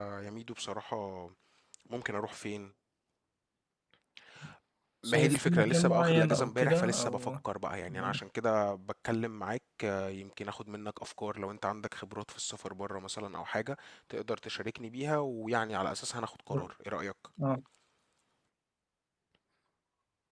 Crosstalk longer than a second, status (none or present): present